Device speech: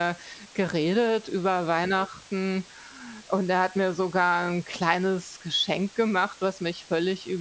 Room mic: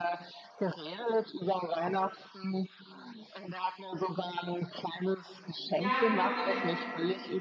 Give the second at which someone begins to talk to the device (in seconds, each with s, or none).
5.5 s